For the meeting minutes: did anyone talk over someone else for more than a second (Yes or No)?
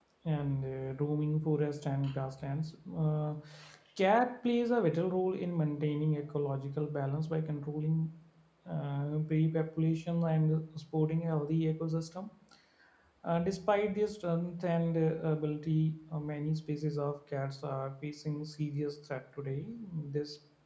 No